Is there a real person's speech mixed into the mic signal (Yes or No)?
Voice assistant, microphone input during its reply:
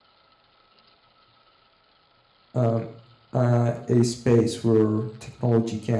Yes